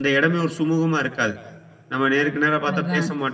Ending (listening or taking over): listening